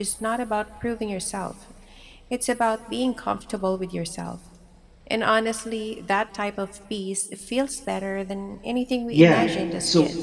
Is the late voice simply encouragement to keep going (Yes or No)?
No